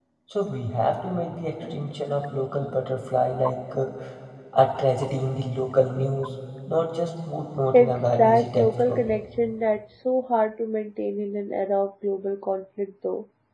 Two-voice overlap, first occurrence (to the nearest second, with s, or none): 8 s